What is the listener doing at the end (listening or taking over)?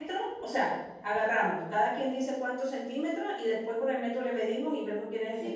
taking over